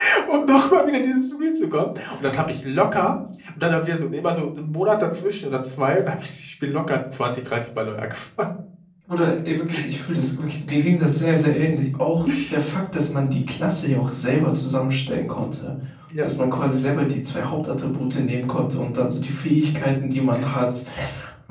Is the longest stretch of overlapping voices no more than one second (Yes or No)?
Yes